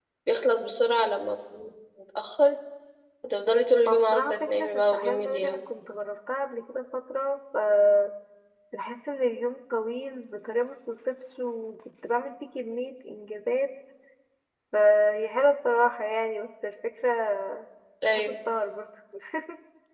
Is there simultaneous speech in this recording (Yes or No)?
Yes